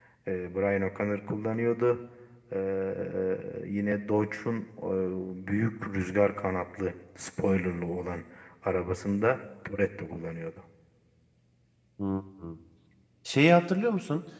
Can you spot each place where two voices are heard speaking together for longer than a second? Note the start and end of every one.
none

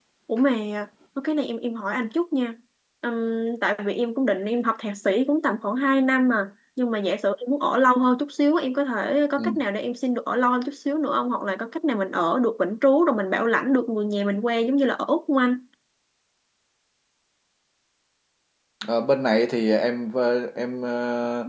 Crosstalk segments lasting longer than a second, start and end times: none

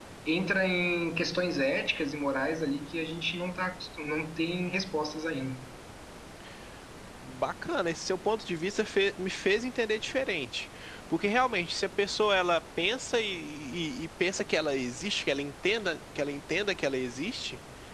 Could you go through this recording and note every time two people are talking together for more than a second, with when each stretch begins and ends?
none

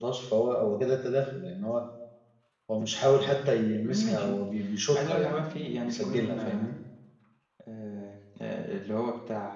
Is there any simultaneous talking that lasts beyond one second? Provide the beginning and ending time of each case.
5.0-6.8

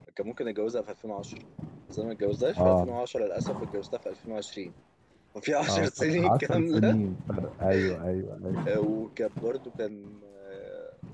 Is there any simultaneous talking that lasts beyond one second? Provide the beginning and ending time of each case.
5.7-7.0

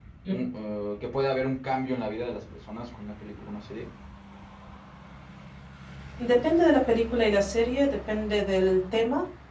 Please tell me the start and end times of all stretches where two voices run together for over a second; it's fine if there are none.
none

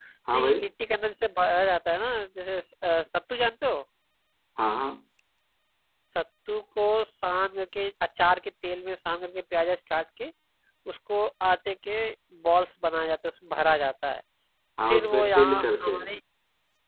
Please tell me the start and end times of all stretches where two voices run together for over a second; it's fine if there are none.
14.9-16.1

